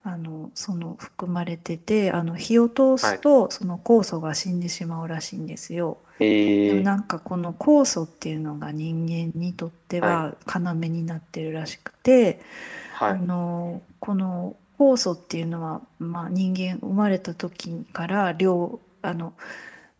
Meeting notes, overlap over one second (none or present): none